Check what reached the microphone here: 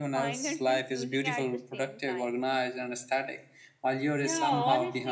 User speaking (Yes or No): Yes